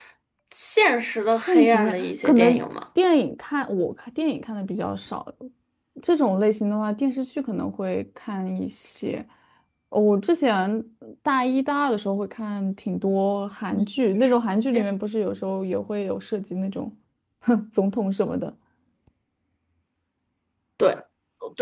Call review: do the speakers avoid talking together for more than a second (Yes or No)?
No